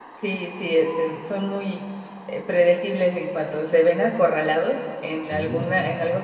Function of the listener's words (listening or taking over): listening